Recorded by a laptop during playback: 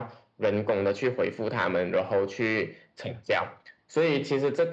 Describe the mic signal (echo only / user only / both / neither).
echo only